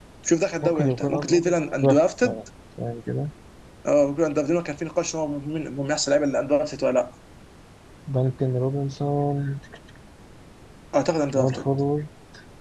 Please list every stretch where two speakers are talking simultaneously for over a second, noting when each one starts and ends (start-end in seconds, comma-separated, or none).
0.6-2.4